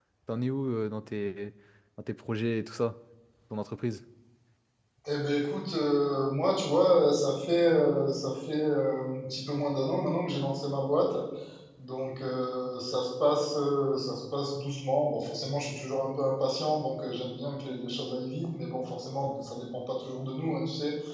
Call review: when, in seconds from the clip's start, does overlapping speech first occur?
none

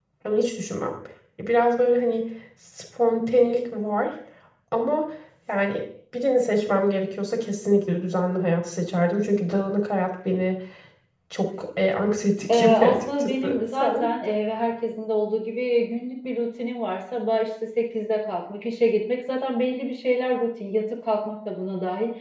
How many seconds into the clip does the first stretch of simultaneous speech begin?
12.5 s

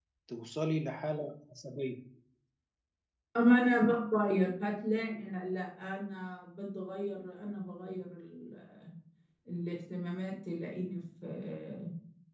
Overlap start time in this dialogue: none

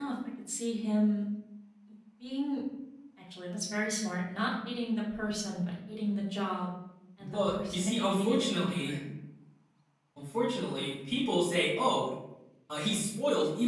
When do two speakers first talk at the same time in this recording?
7.2 s

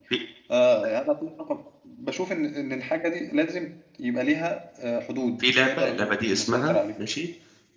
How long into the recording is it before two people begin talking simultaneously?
5.4 s

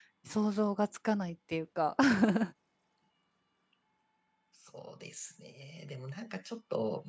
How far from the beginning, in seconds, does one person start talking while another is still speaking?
none

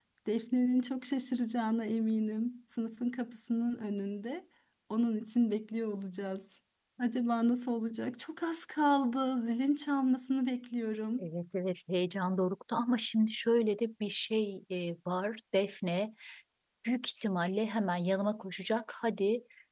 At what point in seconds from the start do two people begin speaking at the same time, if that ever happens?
none

